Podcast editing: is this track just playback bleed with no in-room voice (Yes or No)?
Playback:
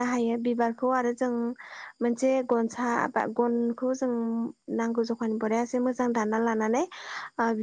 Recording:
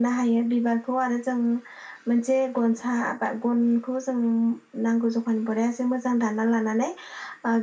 Yes